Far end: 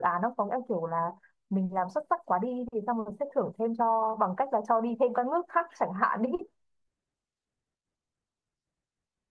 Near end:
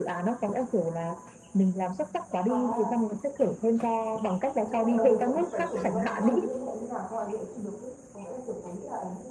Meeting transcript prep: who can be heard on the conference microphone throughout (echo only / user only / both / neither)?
both